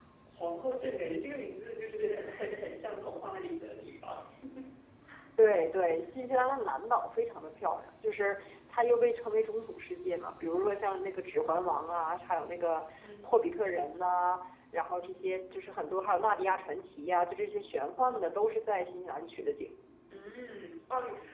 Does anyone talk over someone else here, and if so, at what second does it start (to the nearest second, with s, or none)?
none